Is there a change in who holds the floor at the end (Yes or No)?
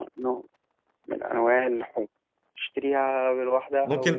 Yes